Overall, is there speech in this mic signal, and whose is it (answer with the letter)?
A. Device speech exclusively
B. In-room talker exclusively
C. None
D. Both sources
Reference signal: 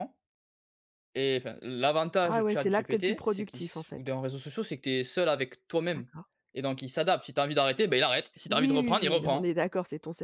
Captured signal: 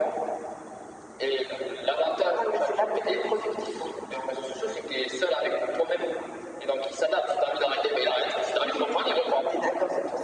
A